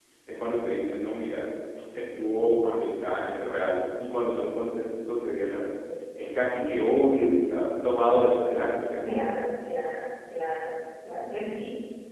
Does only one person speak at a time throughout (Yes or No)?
Yes